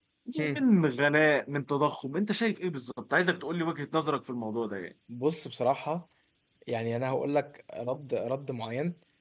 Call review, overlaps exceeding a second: none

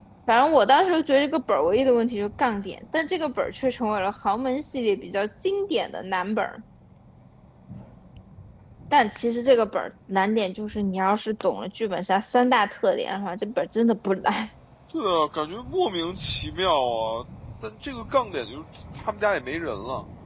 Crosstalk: none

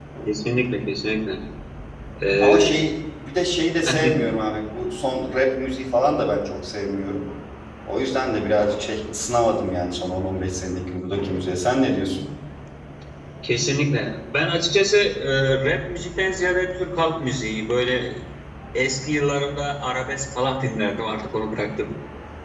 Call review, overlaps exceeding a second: none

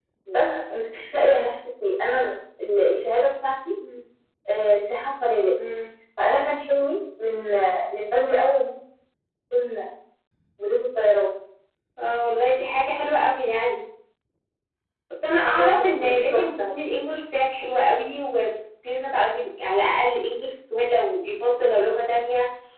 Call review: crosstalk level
present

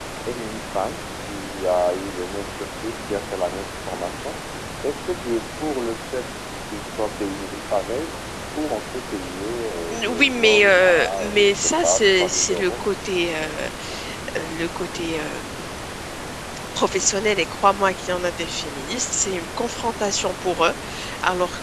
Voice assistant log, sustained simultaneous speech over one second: present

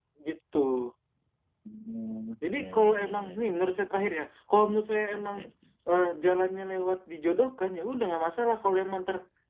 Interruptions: present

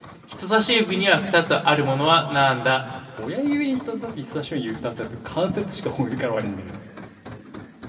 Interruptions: none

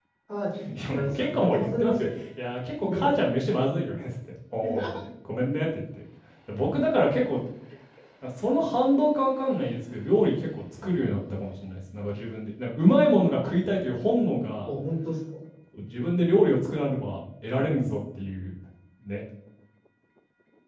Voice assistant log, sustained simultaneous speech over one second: present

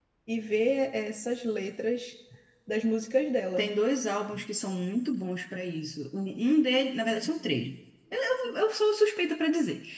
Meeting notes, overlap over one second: none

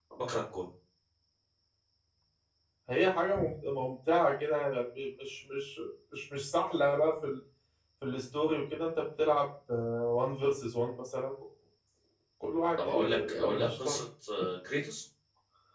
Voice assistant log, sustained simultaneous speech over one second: present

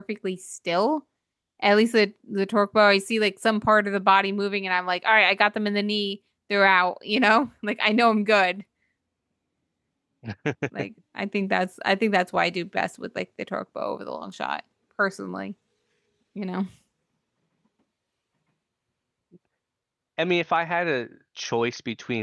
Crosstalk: none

